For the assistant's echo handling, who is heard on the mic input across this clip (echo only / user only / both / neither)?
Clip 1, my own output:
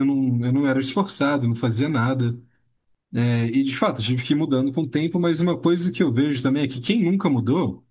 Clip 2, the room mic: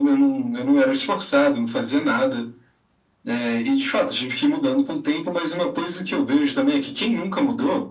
echo only